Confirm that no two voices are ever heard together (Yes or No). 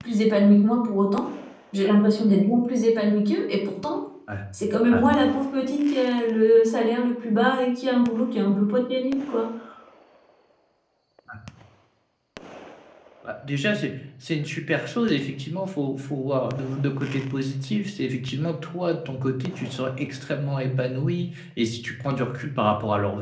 Yes